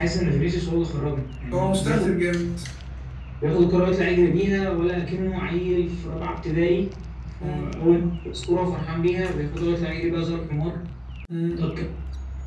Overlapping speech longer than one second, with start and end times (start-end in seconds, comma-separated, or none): none